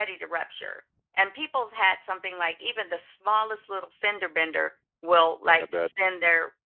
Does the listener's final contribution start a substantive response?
No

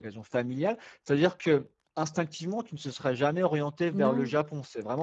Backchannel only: Yes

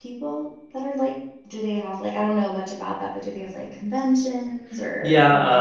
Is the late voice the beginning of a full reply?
Yes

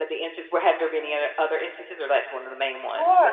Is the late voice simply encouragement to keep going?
No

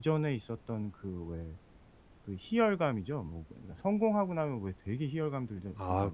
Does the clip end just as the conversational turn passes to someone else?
Yes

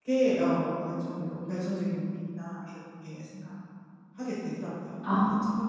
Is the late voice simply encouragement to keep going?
No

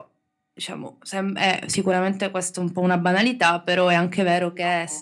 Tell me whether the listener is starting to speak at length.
No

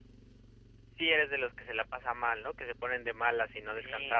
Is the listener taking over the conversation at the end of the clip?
Yes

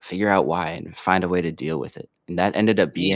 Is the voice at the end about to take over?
No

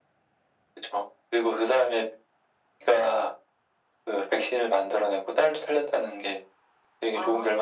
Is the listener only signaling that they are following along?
No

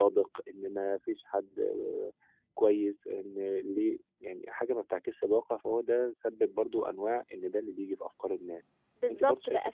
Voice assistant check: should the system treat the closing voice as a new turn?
Yes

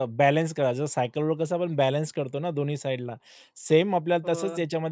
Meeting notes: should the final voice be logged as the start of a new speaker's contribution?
No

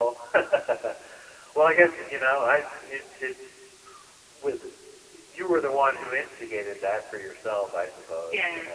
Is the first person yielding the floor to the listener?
Yes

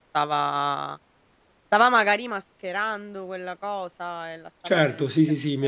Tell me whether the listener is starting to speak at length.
Yes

